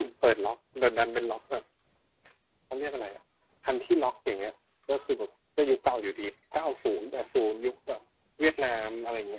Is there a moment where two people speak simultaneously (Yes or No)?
No